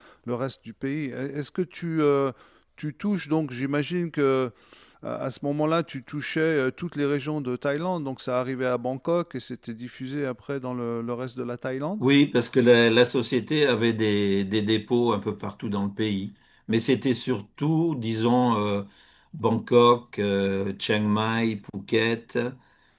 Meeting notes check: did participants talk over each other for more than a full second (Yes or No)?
No